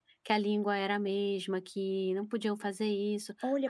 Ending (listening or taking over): taking over